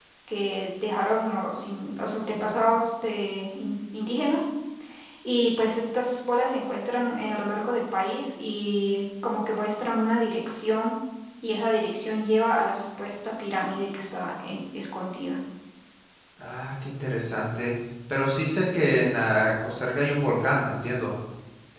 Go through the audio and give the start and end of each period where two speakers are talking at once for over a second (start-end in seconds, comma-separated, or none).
none